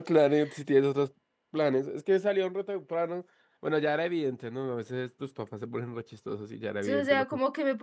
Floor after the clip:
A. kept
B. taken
B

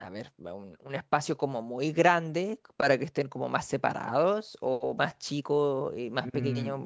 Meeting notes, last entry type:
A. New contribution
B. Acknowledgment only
A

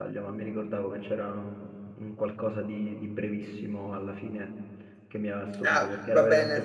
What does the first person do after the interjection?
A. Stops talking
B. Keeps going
A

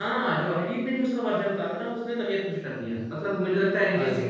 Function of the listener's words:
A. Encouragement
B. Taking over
A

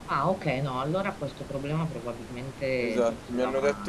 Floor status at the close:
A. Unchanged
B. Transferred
B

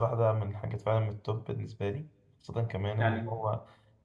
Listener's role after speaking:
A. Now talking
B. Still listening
B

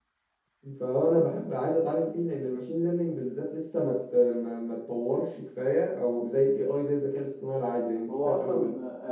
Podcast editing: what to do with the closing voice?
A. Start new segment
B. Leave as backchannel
A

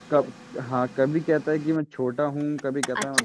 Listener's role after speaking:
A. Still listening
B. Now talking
B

